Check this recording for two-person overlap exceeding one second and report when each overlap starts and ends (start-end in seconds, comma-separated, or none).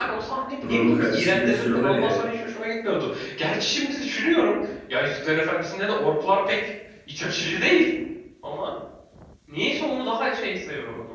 0.6-2.2